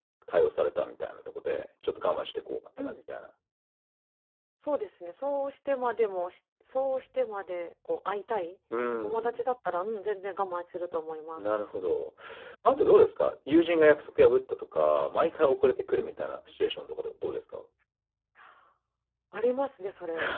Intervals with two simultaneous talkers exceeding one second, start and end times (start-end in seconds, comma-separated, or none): none